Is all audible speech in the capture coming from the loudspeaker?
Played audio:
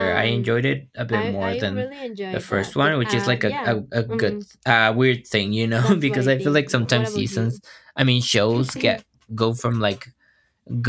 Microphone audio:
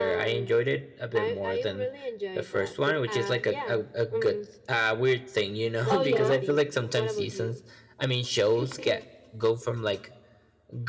No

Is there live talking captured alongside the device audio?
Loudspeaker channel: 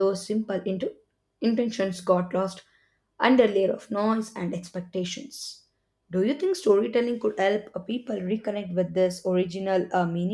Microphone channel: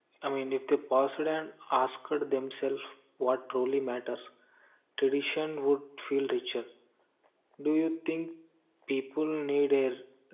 Yes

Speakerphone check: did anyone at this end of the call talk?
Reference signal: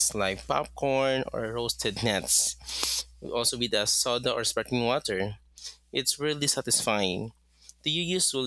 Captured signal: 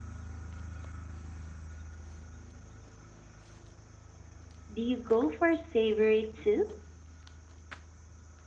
Yes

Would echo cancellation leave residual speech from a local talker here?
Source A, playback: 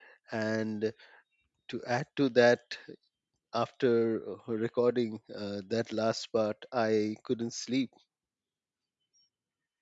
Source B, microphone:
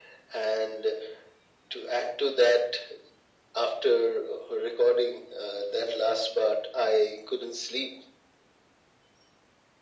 No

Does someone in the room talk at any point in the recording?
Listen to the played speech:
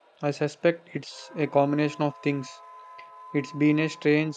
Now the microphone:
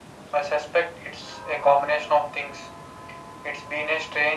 No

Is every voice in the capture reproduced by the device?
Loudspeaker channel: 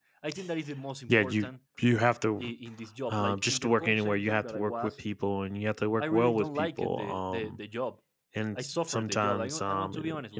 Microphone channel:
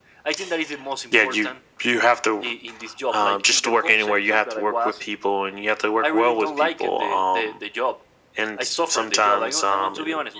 Yes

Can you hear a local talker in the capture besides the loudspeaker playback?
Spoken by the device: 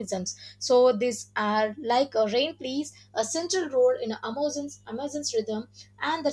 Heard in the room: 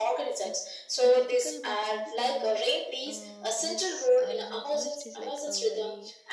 Yes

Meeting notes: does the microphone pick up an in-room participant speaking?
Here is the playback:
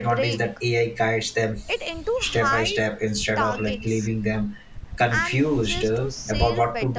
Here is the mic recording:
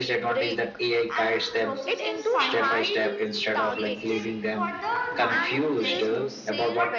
Yes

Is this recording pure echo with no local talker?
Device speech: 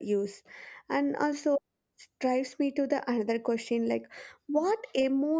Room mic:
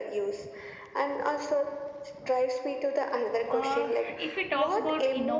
No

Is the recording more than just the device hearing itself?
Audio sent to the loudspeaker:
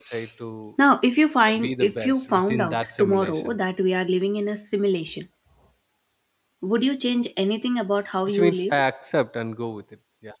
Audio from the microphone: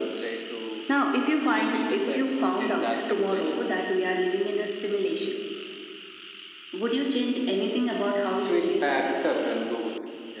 No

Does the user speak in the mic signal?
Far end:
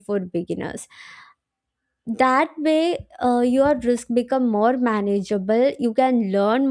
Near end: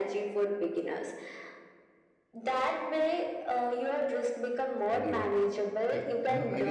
Yes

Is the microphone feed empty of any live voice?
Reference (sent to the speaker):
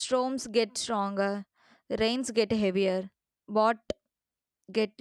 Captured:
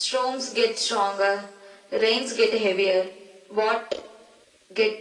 Yes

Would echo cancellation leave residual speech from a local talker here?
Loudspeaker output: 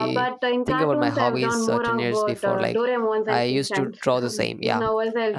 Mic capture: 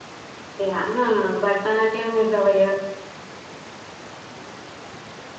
Yes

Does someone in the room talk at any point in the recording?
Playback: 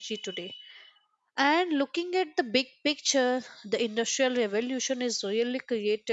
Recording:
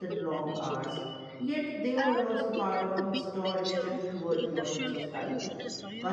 Yes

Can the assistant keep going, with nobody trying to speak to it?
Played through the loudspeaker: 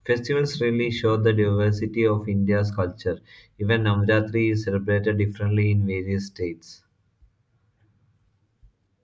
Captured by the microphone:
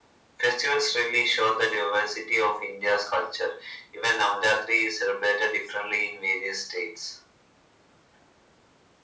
Yes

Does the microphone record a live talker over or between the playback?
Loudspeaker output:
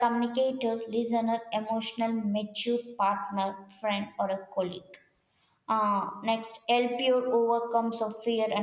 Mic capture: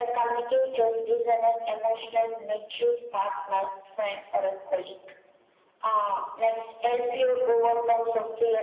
No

